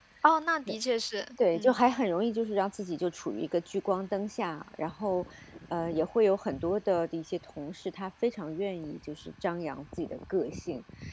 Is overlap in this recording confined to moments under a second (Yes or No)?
Yes